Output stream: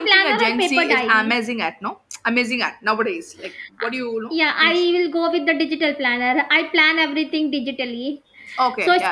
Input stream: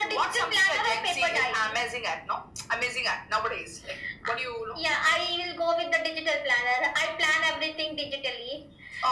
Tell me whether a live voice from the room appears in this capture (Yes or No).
No